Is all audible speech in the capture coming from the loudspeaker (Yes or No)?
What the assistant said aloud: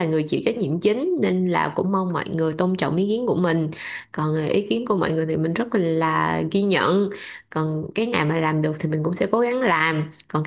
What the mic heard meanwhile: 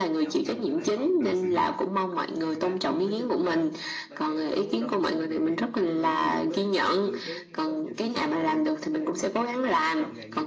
No